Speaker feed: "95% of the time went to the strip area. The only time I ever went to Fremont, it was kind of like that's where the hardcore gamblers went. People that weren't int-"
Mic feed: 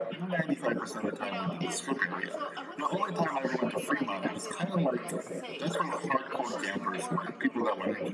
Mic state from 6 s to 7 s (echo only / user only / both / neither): both